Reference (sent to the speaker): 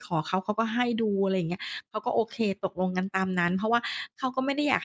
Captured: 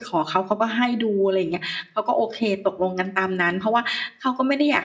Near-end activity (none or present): none